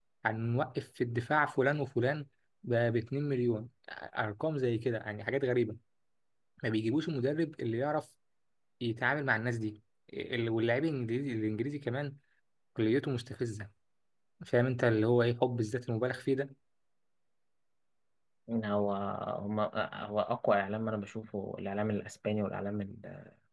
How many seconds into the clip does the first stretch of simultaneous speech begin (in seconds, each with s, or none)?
none